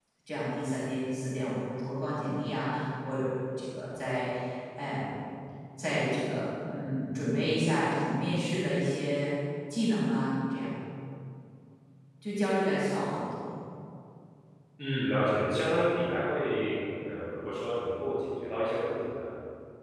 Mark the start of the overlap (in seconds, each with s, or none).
none